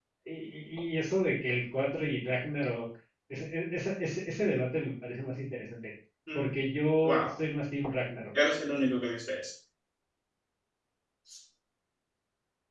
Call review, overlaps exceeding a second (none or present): none